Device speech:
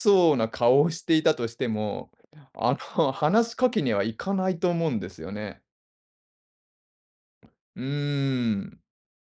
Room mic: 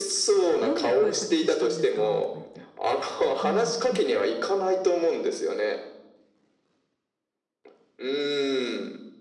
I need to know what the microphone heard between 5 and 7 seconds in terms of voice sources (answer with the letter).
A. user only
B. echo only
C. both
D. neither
B